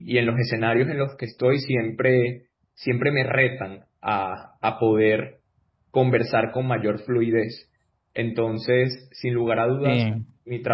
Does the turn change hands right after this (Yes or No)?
No